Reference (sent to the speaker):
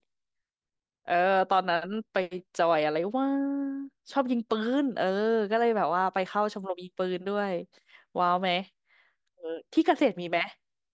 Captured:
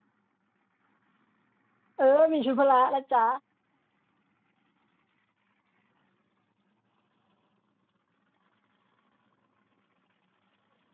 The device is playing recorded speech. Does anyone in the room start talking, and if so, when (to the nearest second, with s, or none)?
2 s